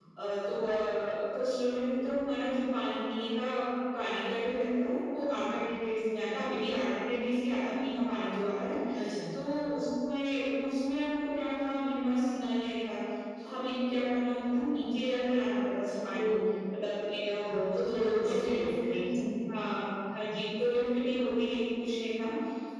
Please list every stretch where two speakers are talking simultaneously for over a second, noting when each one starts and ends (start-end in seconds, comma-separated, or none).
16.8-18.9